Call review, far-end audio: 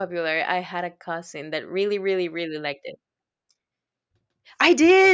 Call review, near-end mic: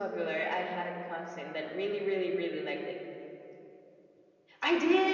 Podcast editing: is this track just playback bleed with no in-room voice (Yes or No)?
Yes